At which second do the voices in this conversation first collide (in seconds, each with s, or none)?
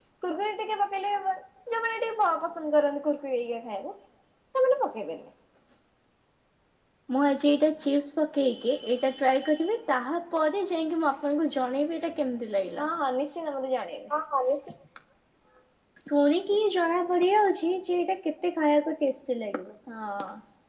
none